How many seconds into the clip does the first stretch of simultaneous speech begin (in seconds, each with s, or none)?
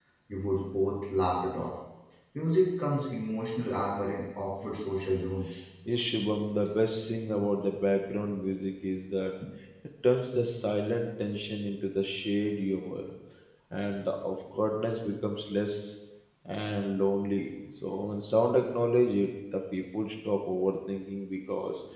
none